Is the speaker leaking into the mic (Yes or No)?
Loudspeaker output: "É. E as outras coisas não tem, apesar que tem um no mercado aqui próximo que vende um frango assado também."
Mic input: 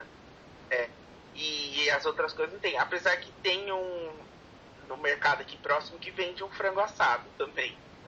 Yes